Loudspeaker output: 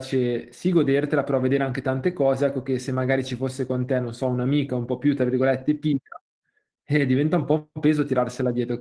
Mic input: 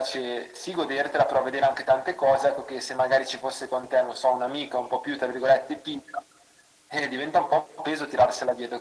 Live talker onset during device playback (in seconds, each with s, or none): none